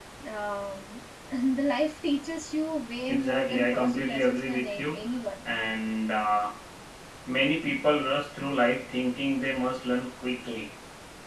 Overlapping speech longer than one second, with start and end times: 3.1-5.0

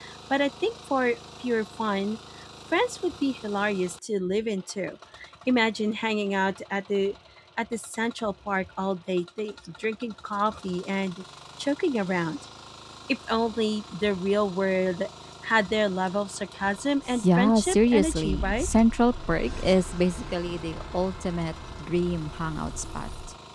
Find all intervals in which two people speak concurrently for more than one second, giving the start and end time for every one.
17.2-18.7

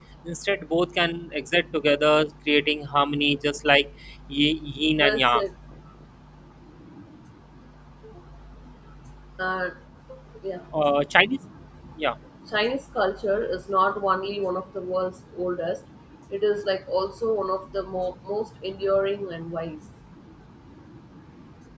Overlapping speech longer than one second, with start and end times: none

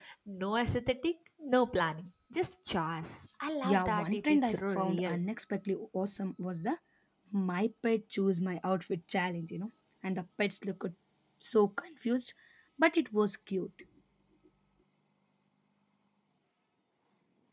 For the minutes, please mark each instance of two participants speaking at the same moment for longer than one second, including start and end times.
3.6-5.2

